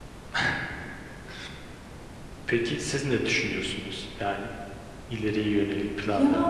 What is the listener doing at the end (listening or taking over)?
taking over